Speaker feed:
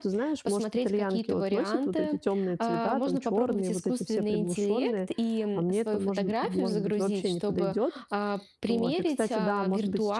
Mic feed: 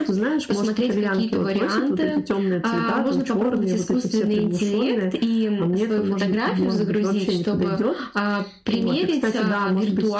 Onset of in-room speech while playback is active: none

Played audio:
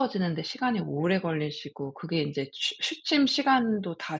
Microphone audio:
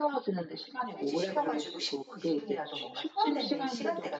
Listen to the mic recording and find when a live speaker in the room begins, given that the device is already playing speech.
0.8 s

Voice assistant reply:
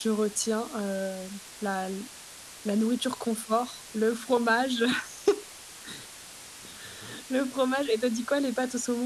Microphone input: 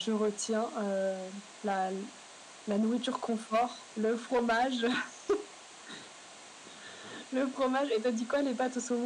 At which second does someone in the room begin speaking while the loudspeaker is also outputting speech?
none

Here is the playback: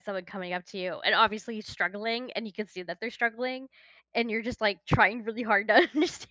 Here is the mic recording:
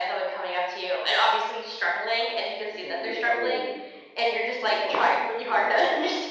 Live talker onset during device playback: 2.7 s

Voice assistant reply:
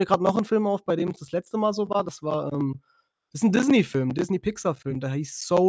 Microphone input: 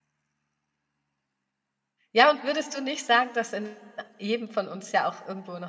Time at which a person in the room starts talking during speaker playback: 2.1 s

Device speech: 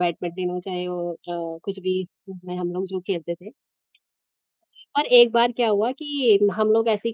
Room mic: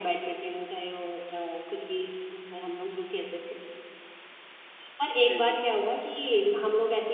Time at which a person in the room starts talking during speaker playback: 5.2 s

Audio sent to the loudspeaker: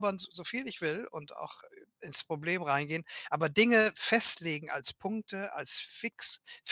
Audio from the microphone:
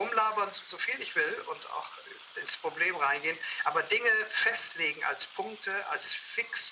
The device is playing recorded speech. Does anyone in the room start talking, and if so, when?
none

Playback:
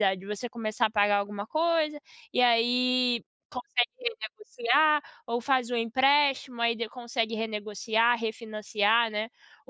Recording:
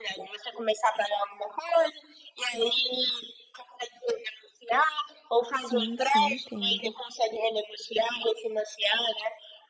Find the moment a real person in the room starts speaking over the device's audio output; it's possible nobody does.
5.5 s

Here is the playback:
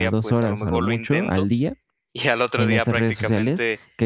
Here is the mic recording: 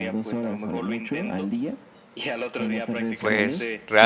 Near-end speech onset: 3.2 s

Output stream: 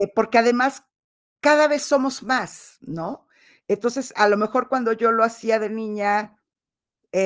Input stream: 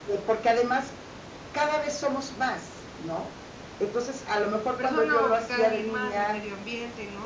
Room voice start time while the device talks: 4.8 s

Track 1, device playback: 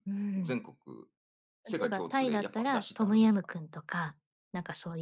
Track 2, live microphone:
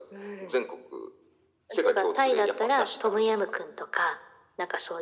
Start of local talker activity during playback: none

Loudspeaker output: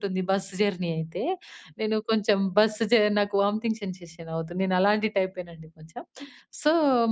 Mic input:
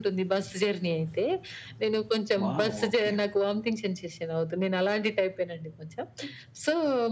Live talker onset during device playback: 2.4 s

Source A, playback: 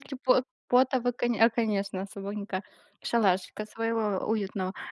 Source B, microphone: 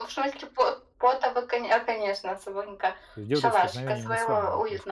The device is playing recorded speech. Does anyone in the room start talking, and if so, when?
3.1 s

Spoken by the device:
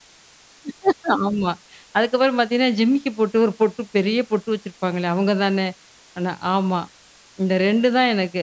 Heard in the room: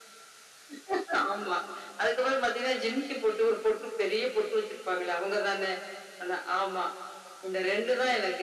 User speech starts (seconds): none

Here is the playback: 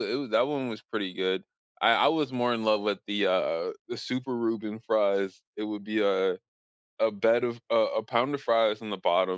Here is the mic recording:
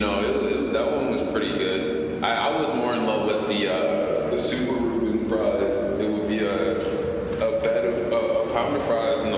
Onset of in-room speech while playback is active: none

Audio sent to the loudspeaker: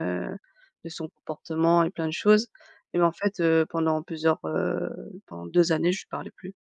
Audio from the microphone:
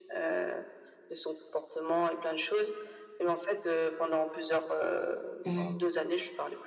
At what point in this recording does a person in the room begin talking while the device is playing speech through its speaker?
5.4 s

